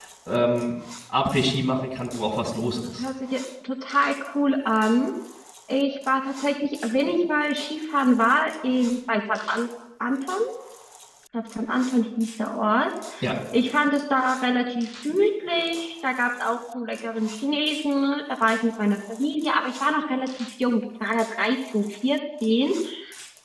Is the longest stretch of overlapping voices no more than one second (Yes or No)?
Yes